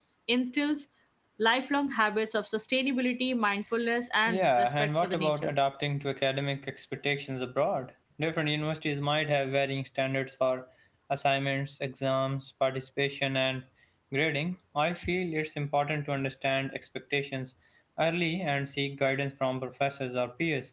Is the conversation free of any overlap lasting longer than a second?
No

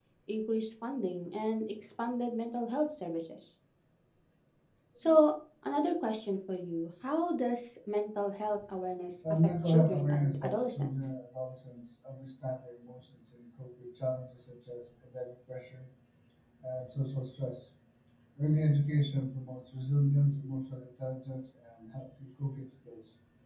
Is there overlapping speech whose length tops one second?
Yes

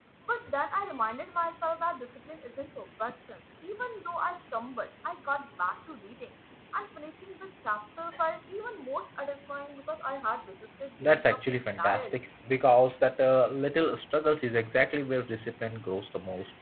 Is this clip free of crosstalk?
No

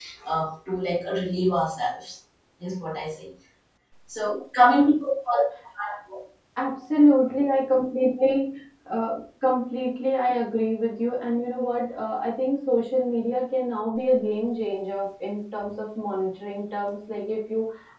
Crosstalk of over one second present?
No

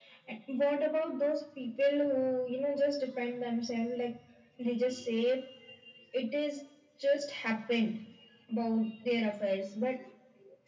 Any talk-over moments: No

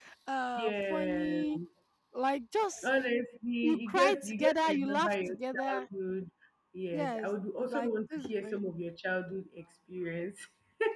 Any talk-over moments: Yes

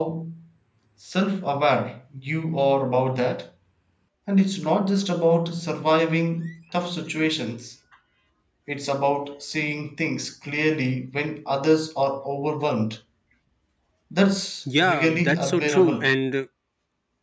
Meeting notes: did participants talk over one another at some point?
Yes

